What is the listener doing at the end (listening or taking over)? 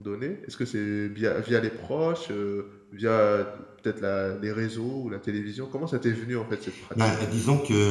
taking over